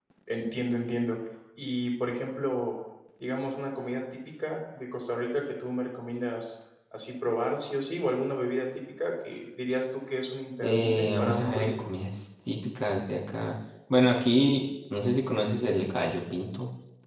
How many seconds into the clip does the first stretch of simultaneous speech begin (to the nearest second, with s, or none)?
11 s